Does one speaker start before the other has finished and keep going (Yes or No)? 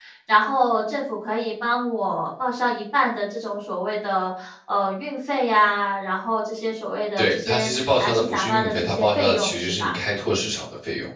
Yes